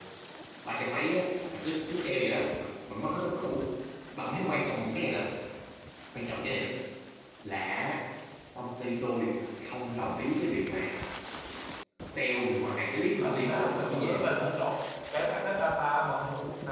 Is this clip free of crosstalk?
No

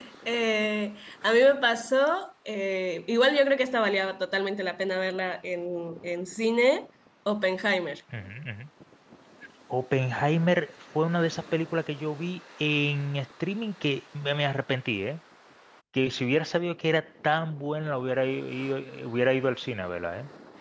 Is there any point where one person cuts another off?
No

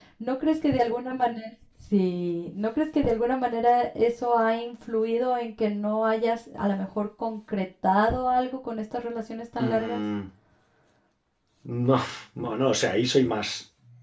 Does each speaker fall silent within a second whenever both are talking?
Yes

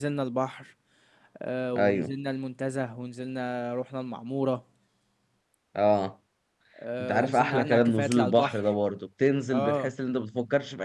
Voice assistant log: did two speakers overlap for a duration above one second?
Yes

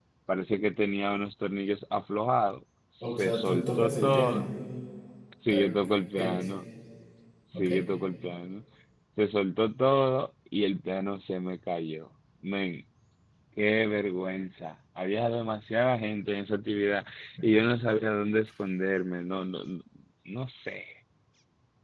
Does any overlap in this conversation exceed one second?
Yes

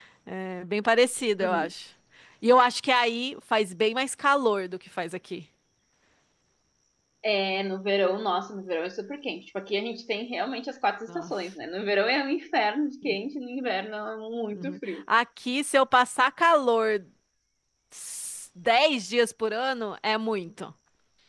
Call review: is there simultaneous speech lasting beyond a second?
No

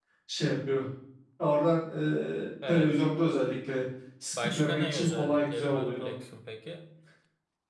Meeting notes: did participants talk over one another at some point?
Yes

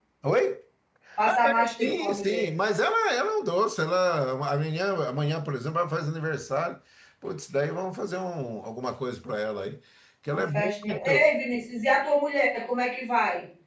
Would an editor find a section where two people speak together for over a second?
Yes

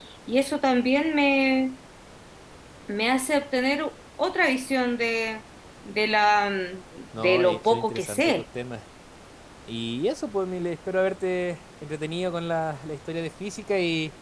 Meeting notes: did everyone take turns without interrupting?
No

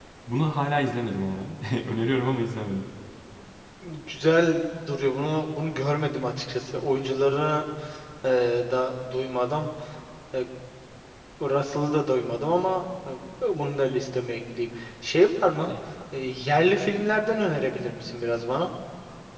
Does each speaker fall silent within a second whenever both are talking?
Yes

